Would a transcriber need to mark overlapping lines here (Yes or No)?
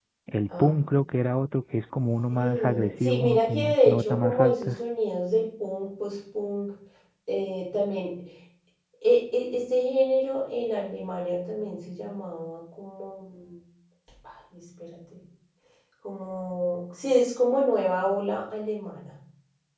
Yes